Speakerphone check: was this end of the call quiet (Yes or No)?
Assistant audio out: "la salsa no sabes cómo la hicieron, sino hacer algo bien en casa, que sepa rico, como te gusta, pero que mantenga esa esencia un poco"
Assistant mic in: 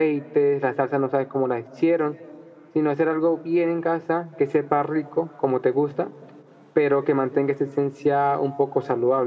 Yes